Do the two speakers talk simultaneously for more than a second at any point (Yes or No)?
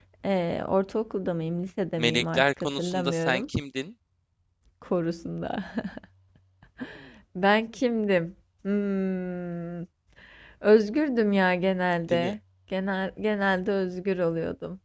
Yes